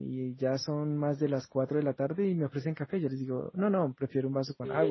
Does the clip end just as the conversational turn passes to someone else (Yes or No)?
No